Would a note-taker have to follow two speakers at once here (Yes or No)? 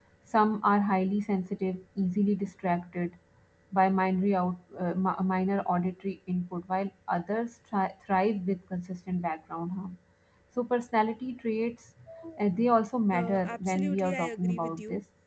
Yes